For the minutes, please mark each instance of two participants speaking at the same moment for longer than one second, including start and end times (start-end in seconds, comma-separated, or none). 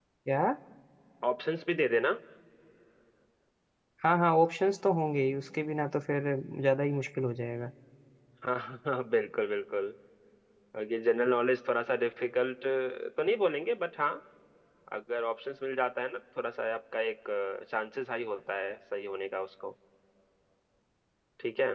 none